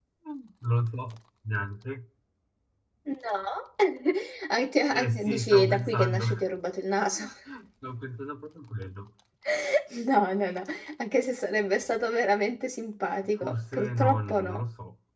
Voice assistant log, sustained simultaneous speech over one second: present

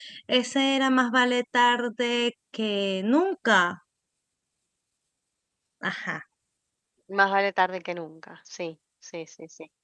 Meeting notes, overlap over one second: none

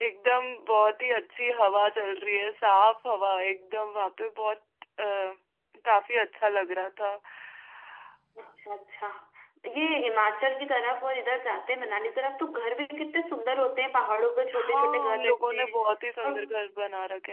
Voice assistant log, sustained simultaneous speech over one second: present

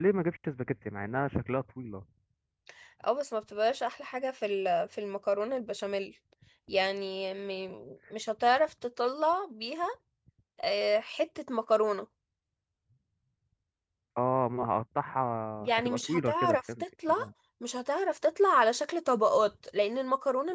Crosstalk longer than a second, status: present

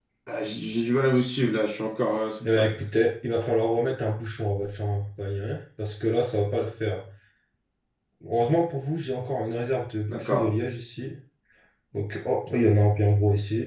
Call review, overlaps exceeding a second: none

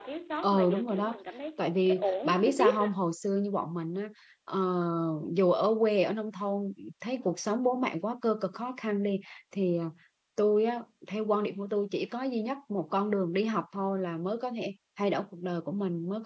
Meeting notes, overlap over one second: present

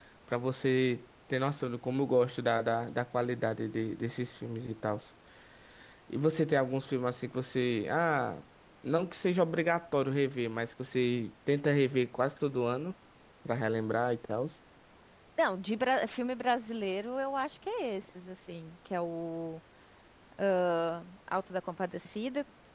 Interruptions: none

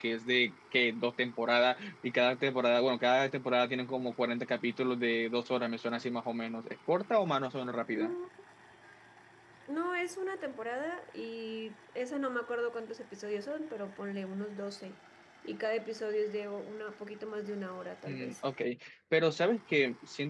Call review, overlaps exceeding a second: none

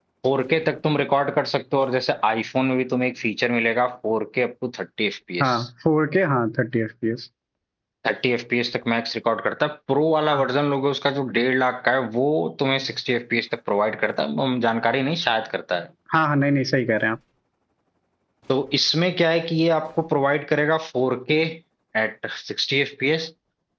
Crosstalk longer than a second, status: none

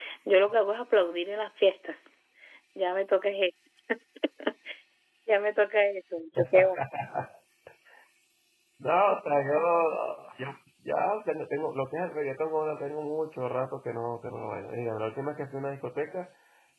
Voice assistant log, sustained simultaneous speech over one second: none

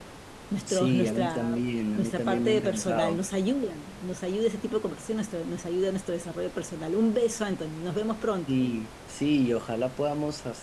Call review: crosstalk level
present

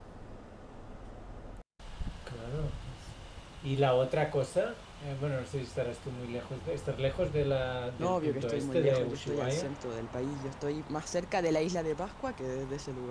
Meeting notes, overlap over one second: present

